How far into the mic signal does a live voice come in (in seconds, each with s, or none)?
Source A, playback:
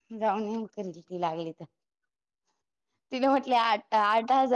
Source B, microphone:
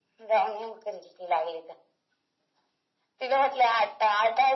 none